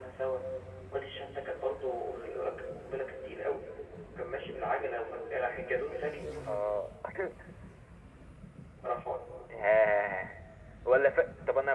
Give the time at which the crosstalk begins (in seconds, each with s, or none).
none